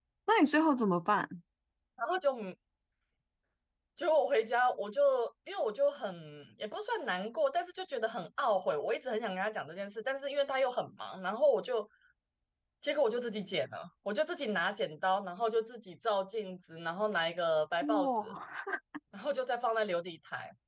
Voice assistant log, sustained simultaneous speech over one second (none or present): none